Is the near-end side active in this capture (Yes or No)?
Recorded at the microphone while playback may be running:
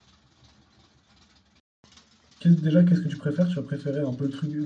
Yes